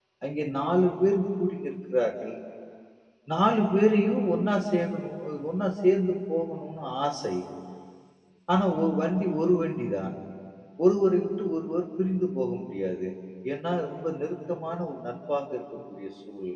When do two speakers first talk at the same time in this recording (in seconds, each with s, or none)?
none